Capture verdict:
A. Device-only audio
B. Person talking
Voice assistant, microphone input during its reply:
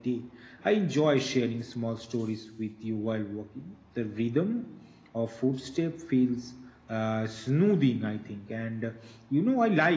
A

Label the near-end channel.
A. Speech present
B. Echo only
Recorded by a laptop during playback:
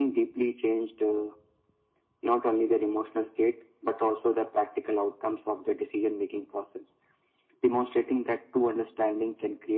B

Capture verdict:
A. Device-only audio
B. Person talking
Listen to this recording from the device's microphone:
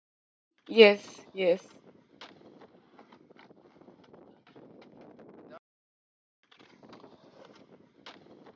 B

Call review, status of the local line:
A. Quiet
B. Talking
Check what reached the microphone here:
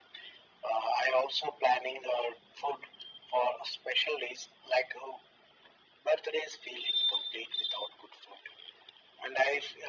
A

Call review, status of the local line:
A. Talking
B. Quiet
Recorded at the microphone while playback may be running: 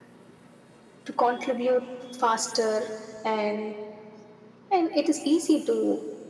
B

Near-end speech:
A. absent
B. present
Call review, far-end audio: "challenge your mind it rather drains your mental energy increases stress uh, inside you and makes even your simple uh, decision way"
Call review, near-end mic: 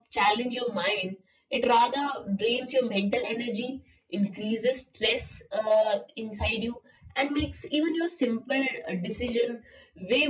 A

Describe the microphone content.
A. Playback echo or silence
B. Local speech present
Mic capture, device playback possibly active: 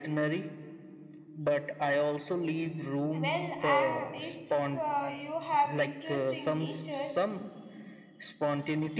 B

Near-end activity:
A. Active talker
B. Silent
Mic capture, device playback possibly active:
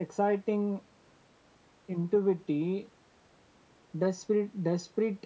B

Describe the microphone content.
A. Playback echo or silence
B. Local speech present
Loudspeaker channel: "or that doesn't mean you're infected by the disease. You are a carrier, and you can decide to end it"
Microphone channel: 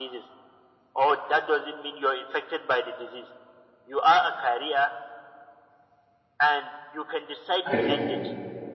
B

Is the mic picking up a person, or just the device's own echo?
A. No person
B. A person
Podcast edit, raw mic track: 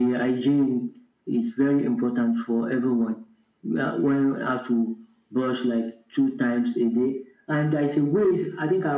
A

